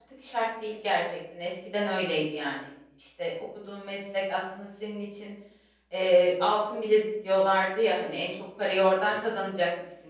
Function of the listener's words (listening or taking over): listening